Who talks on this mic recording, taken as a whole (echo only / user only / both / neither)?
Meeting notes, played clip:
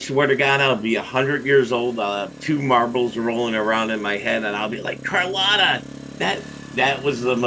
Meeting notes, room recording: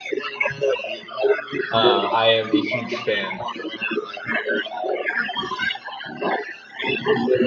both